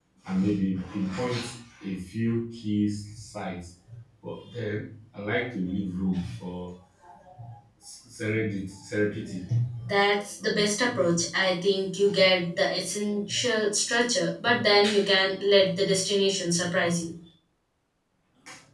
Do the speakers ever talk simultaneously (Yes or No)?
No